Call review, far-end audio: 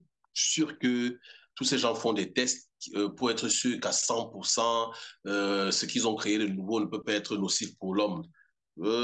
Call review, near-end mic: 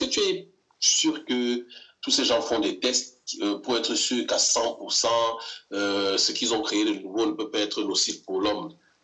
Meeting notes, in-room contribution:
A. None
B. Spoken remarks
A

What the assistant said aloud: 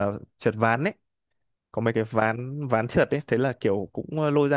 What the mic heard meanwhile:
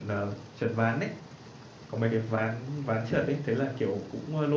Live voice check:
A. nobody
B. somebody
A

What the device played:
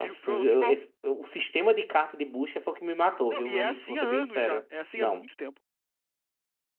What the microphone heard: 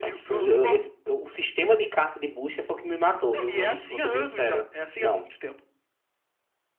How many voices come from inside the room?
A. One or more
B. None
B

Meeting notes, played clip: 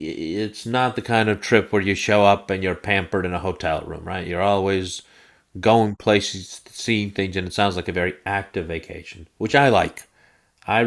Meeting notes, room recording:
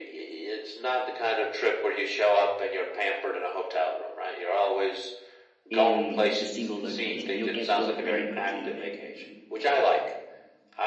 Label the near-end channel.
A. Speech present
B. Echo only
A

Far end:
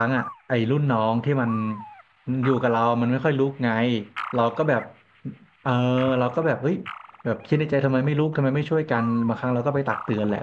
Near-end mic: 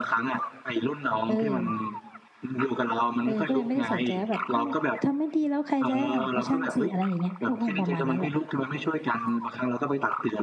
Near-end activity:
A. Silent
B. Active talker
B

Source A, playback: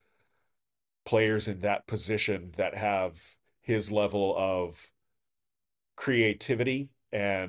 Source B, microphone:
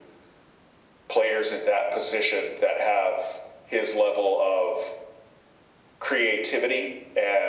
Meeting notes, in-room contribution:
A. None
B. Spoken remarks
A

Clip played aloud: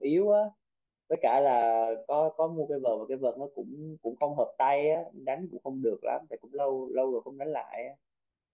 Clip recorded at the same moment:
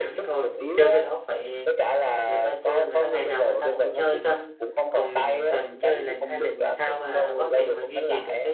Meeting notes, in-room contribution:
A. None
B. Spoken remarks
B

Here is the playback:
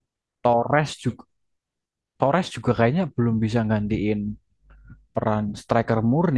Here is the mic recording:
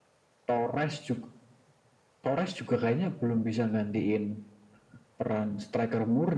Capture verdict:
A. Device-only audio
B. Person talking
A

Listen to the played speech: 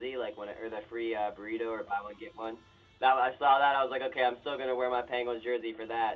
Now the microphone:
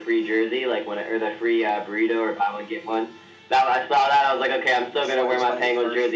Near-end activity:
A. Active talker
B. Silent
A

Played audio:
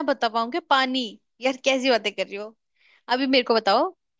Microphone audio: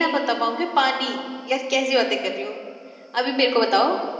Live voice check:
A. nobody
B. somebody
A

